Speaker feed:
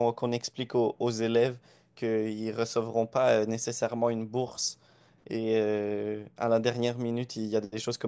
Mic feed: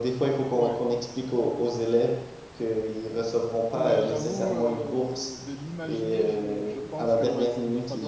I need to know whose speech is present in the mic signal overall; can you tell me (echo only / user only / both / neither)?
both